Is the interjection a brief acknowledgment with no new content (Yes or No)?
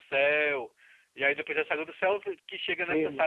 No